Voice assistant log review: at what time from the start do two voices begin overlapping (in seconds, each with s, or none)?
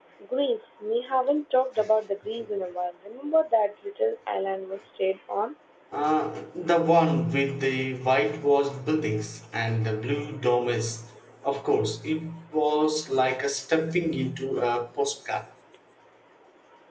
none